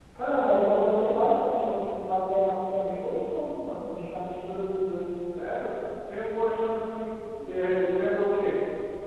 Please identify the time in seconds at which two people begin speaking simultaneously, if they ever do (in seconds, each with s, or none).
none